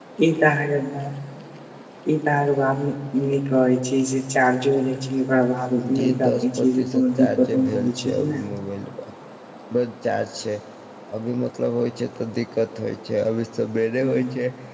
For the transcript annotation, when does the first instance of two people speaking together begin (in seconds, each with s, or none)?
6.0 s